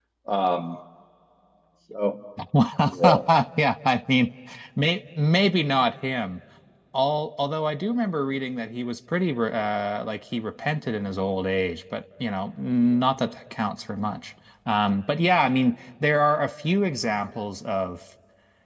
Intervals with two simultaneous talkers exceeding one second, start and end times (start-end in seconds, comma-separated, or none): none